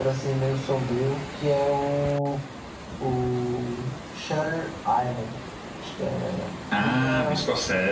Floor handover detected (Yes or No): Yes